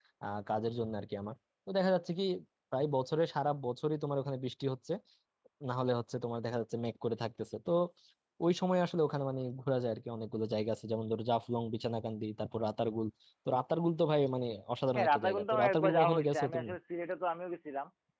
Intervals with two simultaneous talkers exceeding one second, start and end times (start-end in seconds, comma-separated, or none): 14.9-16.7